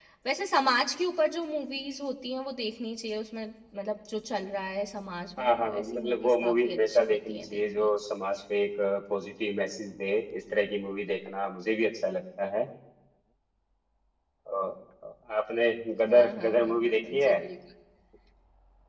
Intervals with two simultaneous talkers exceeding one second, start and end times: 5.4-7.9, 16.1-17.4

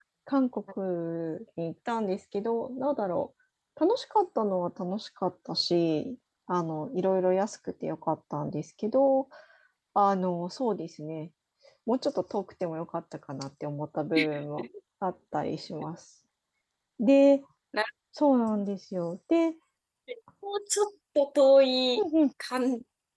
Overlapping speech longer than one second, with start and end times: none

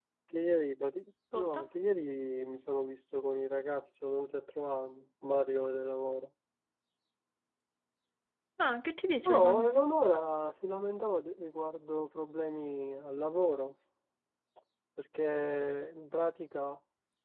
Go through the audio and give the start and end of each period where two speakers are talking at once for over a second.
none

